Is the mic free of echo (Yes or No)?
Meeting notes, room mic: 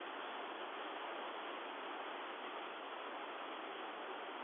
Yes